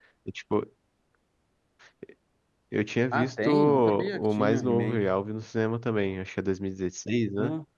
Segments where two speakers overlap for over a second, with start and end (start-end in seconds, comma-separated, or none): 3.1-5.0